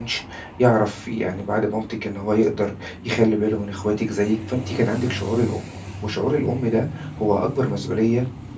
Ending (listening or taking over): listening